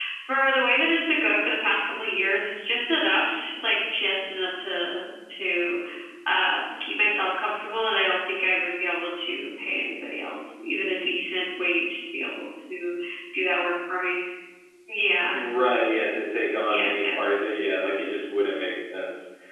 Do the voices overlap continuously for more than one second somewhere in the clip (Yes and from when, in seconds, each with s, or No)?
No